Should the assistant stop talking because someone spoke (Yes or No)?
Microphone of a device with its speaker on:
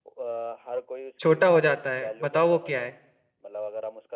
Yes